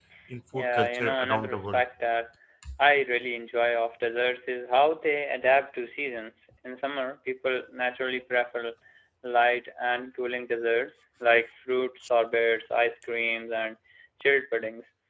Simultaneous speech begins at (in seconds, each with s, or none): 0.5 s